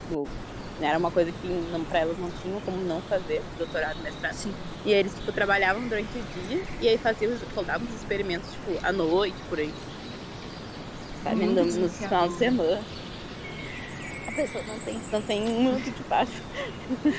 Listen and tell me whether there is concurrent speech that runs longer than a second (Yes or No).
Yes